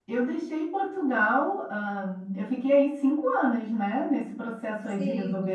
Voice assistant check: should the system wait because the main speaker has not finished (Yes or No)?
Yes